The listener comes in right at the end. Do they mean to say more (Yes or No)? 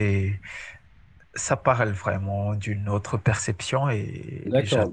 Yes